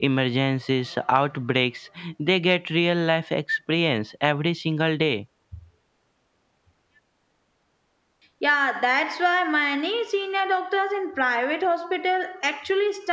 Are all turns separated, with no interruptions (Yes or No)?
Yes